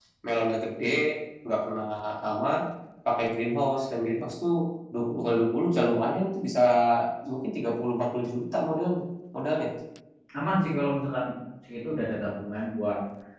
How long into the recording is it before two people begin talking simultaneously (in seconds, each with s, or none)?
none